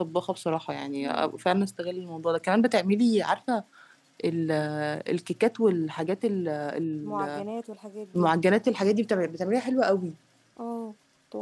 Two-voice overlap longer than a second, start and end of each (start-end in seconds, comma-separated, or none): none